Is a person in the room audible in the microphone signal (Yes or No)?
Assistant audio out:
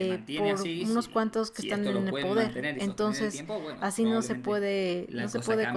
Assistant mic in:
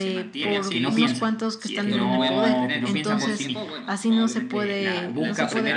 Yes